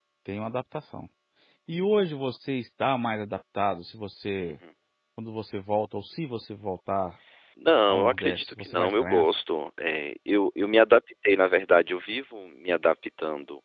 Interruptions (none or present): present